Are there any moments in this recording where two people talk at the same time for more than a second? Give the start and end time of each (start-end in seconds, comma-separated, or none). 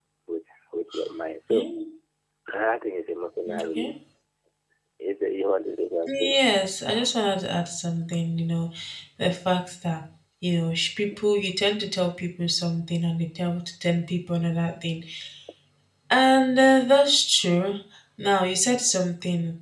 none